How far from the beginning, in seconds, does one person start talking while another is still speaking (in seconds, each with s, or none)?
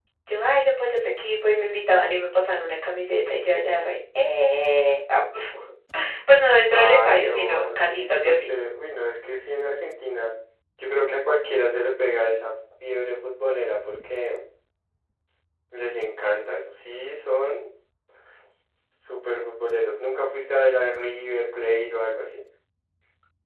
6.7 s